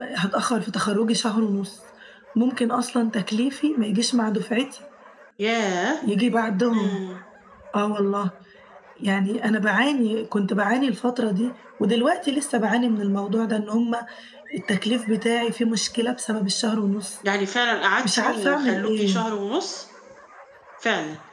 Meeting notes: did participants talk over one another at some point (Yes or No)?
Yes